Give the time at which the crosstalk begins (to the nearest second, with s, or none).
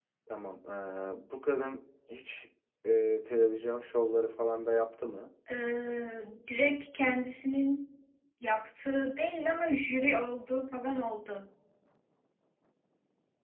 none